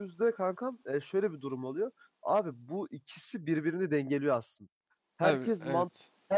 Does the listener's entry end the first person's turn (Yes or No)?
No